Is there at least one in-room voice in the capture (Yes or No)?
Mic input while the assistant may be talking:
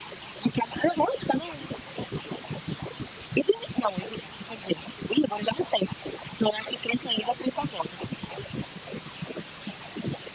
No